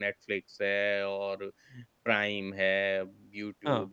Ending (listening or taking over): listening